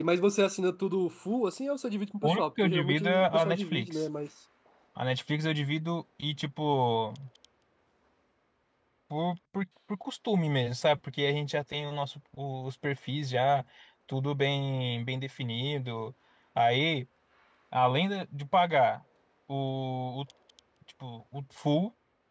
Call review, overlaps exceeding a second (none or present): present